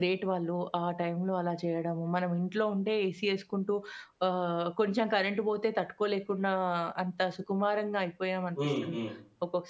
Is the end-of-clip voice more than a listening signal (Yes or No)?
No